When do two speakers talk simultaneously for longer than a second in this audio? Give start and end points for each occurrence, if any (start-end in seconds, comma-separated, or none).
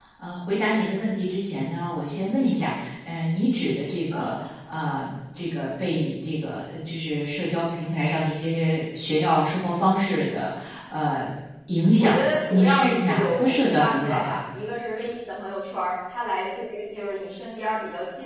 12.0-14.4